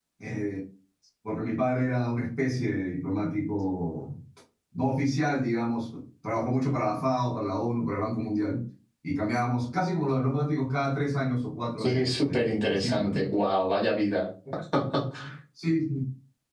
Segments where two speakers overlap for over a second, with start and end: 11.8-13.2

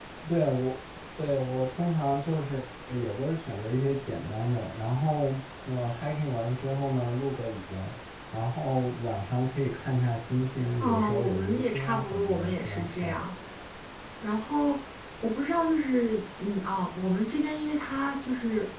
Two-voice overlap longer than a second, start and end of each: 10.8-13.2

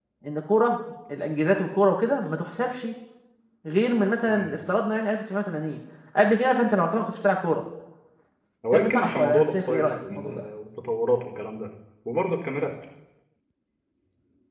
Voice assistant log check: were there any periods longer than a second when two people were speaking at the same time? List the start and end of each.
8.7-10.4

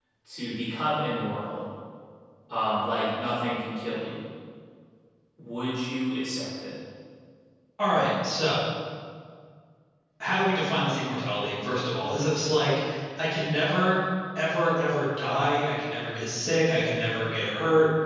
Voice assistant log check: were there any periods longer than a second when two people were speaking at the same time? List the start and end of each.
none

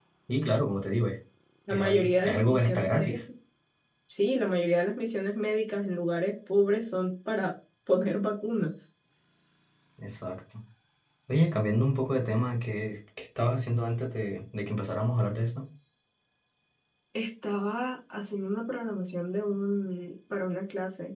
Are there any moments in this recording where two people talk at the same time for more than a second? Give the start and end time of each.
1.7-3.2

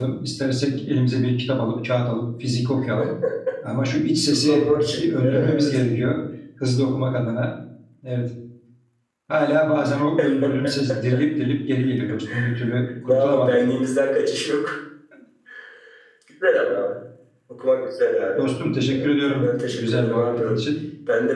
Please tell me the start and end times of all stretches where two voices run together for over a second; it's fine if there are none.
4.3-5.8, 18.9-20.4

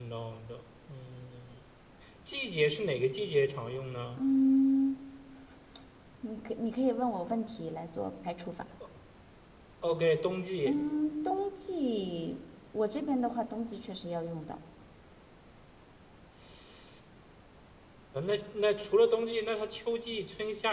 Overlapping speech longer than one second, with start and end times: none

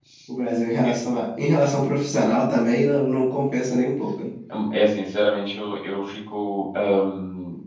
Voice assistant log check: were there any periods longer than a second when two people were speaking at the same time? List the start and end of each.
none

